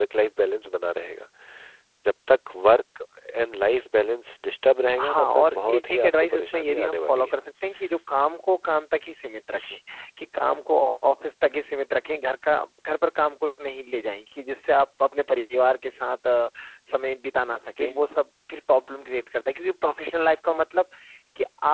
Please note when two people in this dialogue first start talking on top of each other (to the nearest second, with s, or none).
5 s